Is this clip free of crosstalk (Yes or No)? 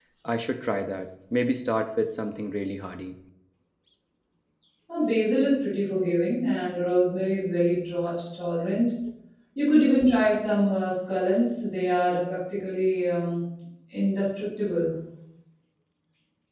Yes